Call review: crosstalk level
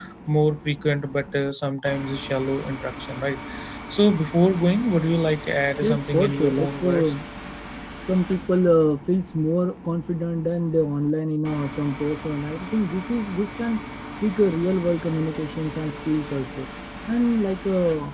present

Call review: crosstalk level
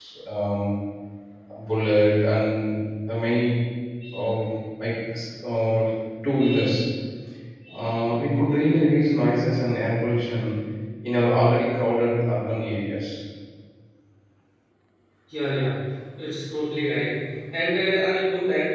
none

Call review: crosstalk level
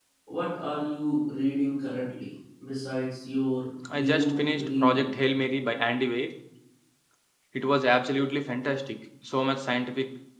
present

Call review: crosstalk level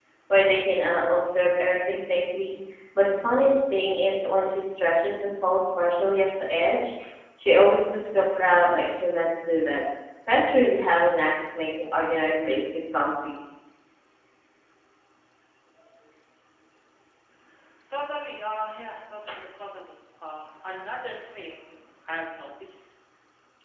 none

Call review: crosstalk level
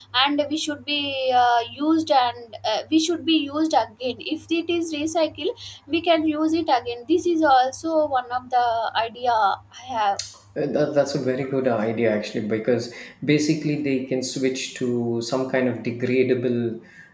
none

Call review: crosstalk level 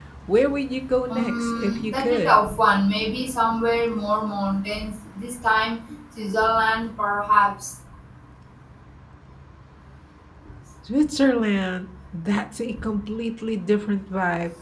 present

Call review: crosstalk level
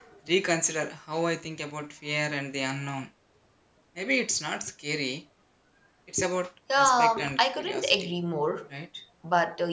present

